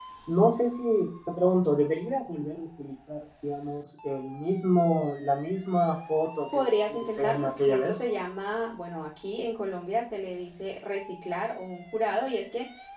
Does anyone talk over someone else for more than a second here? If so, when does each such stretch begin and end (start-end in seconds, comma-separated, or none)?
6.5-8.0